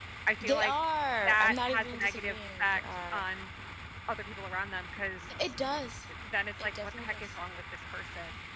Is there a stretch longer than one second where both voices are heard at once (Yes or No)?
Yes